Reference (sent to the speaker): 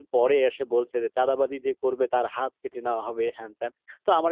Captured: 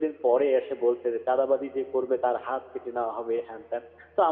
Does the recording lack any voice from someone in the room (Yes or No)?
Yes